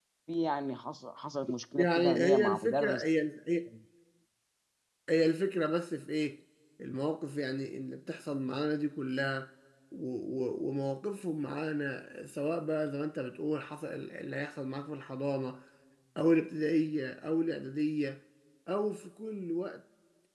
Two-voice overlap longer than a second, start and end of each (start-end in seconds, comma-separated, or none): 1.8-3.0